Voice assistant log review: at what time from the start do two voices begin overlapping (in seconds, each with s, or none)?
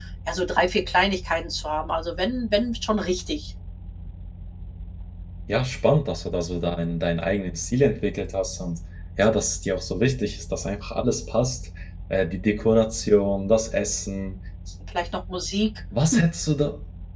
none